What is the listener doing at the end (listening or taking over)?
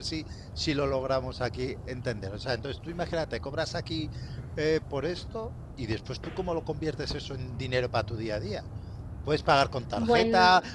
listening